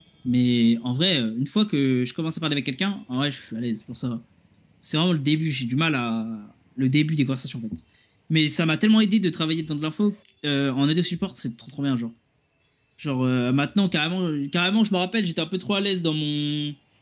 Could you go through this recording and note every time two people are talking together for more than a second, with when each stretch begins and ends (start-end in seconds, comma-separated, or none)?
none